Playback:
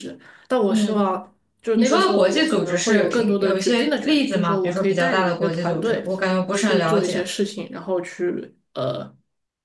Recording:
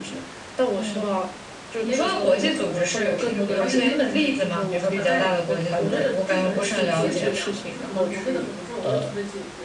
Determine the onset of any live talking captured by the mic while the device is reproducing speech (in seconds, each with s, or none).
2.2 s